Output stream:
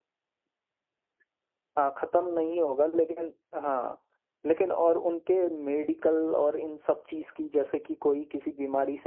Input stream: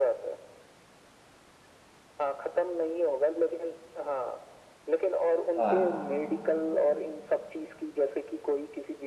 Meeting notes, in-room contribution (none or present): present